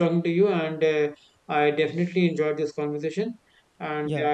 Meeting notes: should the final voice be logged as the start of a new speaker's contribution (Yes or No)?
No